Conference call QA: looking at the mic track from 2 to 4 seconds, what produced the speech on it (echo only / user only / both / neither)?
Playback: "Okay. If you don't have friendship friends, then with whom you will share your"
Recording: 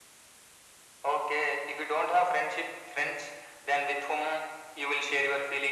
echo only